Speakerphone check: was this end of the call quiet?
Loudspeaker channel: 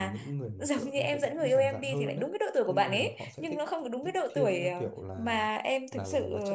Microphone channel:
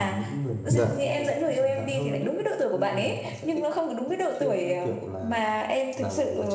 No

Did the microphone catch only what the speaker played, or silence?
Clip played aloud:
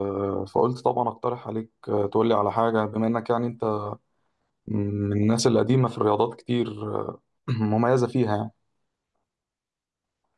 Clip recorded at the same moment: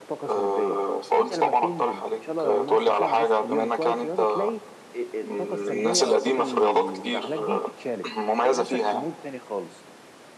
No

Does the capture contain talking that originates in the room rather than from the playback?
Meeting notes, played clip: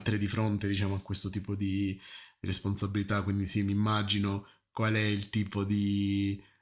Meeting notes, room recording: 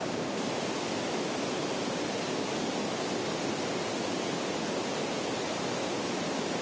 No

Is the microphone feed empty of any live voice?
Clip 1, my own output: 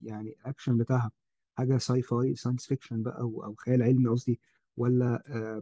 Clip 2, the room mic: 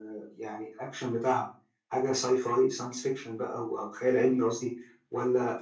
Yes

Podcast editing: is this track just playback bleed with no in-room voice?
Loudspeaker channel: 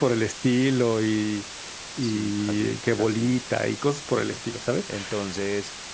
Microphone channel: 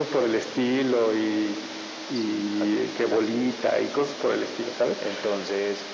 Yes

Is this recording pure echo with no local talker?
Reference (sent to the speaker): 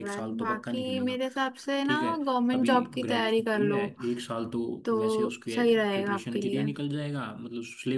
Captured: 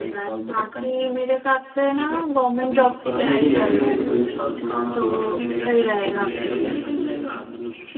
No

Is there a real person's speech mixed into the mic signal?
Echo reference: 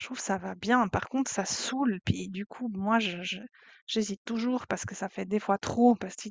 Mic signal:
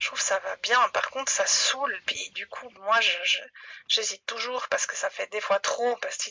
No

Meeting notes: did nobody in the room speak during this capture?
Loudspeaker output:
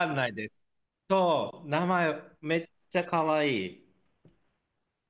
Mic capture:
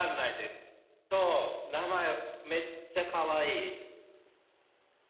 Yes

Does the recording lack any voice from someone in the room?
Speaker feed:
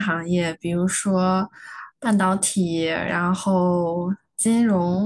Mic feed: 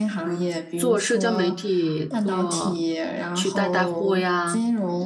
No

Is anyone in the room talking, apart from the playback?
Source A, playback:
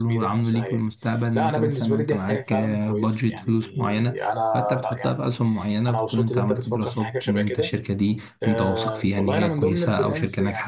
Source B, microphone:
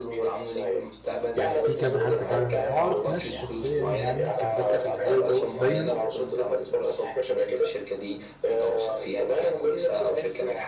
Yes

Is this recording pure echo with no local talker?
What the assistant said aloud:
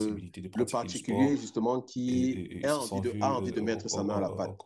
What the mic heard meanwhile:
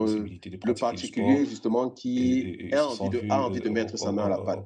Yes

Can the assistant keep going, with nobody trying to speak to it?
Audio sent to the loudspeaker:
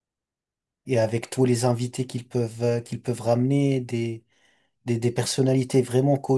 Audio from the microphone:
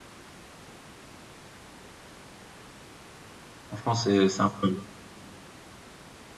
No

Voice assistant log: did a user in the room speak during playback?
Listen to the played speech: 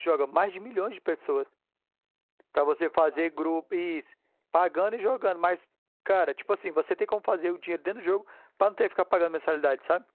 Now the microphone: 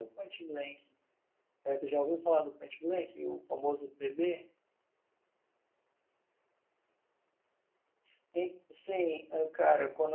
Yes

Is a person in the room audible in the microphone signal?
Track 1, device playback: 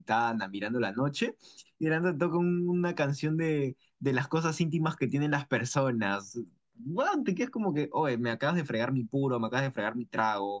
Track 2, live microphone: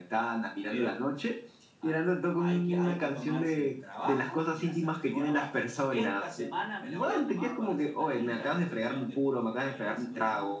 Yes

